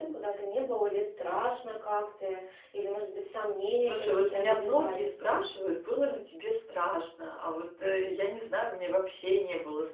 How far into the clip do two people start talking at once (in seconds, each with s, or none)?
3.8 s